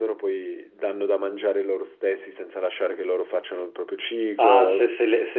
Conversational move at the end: taking over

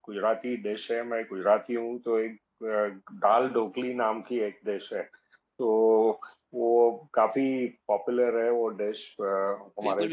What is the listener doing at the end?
taking over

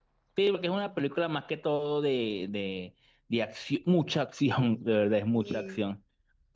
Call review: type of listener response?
listening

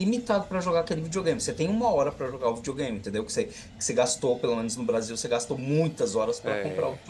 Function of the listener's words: listening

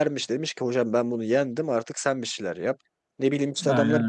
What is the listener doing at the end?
listening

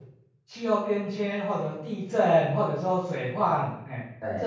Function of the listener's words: listening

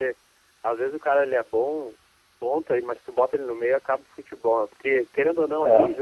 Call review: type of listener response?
listening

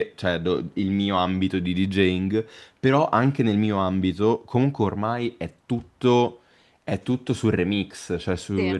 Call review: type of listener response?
listening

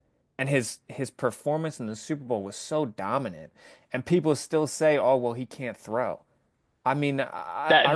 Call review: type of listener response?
taking over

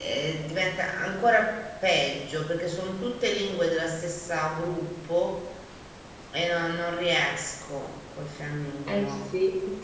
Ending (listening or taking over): taking over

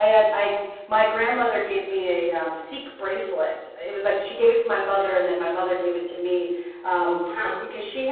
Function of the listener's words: listening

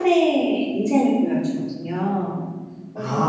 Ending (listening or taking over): taking over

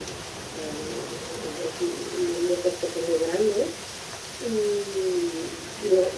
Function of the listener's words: listening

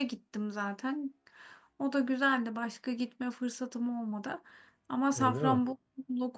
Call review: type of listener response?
listening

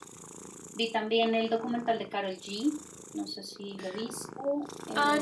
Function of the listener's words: taking over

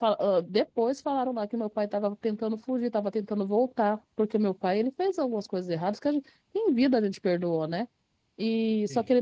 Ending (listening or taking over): listening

